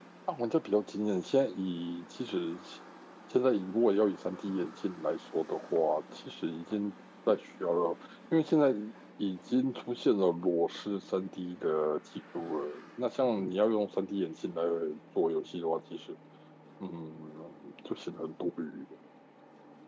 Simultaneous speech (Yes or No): No